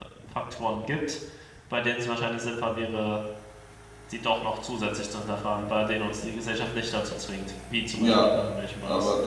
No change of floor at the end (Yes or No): No